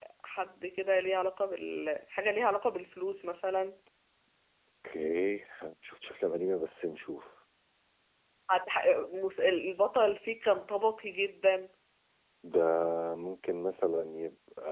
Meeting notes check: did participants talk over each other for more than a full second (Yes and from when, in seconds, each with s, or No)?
No